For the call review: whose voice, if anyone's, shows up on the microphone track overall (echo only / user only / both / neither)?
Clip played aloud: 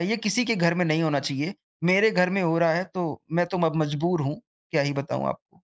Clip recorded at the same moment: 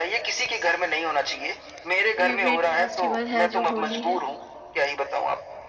both